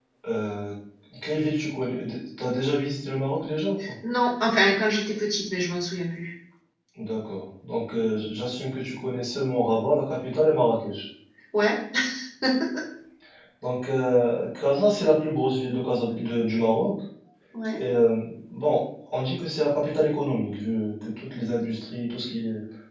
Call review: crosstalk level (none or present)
none